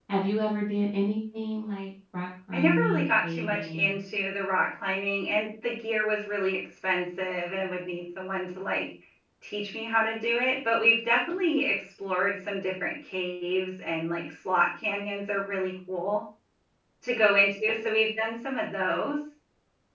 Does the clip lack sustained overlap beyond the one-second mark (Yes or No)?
No